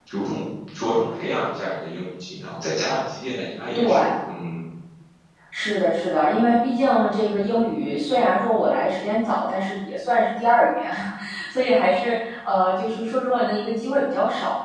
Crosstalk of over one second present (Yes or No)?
No